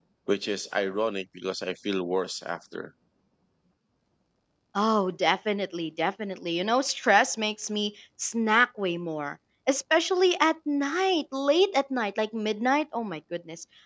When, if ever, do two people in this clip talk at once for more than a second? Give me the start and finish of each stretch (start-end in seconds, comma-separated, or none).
none